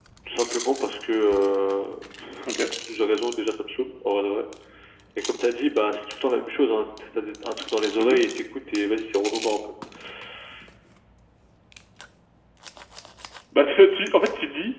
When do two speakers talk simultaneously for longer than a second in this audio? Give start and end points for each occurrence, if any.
none

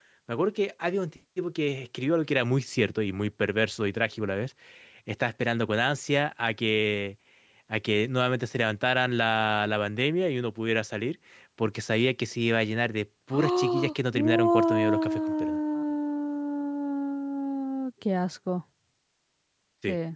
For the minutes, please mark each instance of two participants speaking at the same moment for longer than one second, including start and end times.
13.3-15.6

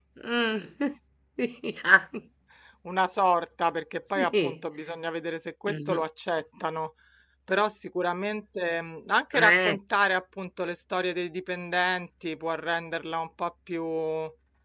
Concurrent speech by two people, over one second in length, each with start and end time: none

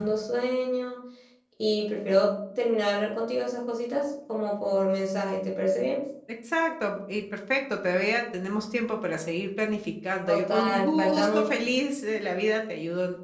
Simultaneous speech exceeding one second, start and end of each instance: 10.3-11.5

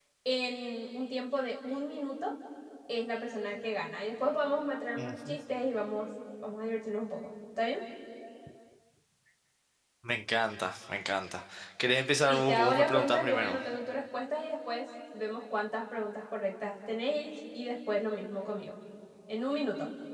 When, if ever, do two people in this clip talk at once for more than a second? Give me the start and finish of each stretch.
12.3-13.6

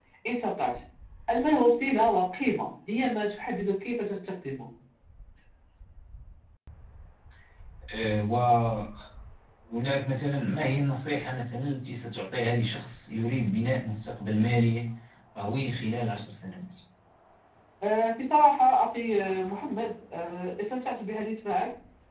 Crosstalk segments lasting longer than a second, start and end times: none

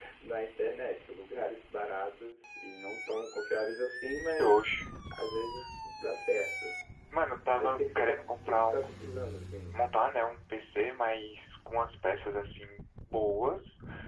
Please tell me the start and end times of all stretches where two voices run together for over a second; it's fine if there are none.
7.6-9.1

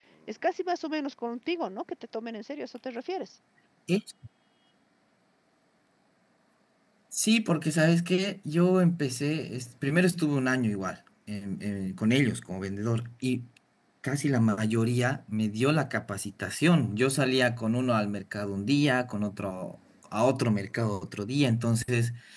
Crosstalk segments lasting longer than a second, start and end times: none

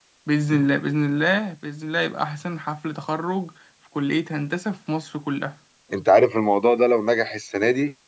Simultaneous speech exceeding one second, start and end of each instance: none

